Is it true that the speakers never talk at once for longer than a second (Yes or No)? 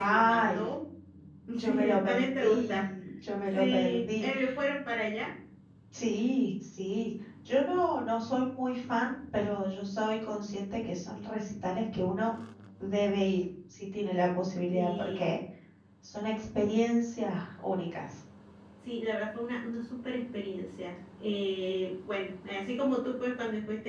No